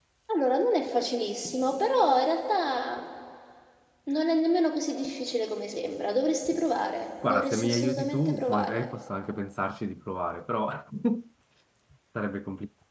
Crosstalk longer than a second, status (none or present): present